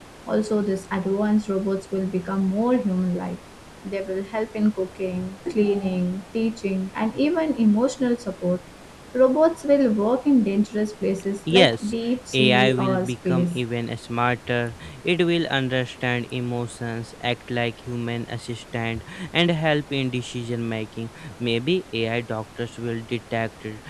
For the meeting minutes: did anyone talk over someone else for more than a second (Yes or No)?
Yes